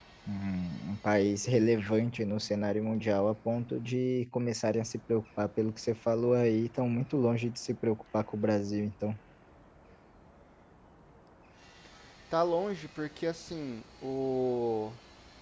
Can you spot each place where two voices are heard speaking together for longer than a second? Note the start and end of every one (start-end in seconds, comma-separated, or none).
none